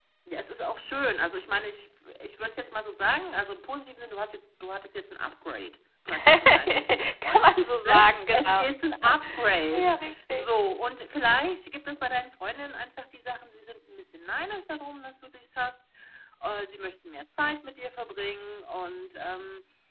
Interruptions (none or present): present